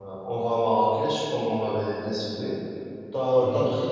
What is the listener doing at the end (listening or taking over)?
listening